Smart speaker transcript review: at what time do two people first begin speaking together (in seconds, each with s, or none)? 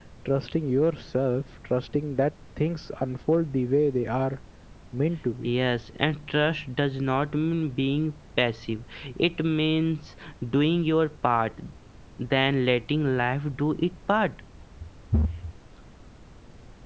none